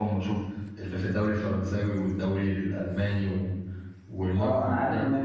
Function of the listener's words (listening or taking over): taking over